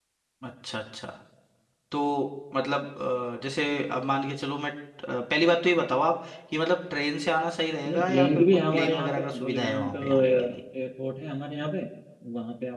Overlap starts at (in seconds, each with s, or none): 7.8 s